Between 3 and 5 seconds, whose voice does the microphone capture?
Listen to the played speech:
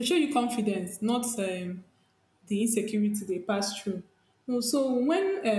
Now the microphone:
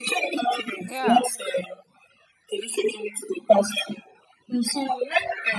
echo only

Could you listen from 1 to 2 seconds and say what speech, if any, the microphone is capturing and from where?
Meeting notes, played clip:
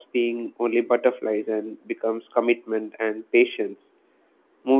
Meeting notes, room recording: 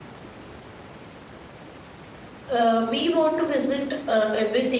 neither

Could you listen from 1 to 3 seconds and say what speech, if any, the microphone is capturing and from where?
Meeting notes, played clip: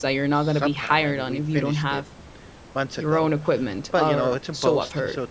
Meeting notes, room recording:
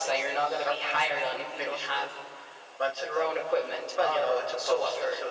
echo only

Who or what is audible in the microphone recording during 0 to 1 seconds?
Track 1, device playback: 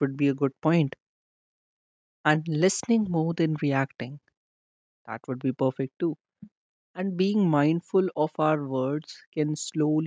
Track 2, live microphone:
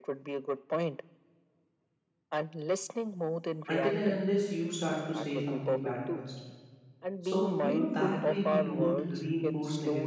echo only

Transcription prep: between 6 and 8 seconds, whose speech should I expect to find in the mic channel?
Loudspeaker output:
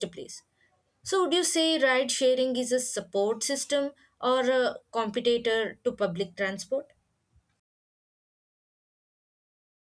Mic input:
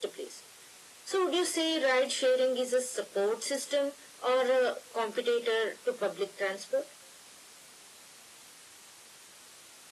echo only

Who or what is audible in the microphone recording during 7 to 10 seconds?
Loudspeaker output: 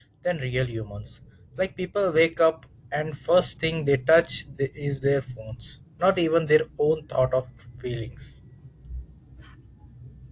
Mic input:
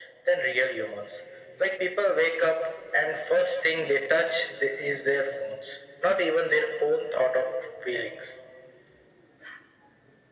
echo only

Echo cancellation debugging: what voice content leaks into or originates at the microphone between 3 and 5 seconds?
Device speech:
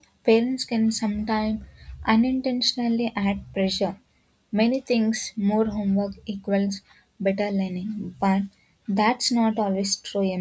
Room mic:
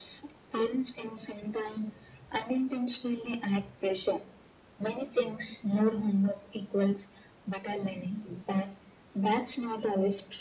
echo only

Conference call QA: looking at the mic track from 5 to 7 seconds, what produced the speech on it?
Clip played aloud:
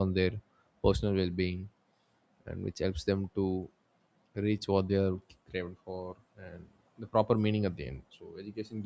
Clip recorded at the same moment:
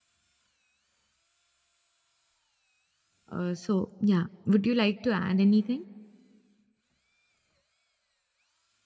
user only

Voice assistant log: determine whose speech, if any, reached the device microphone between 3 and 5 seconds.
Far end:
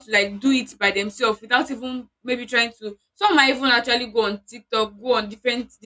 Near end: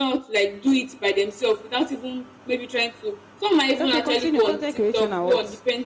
both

